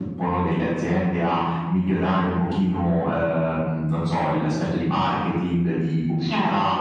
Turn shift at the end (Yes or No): No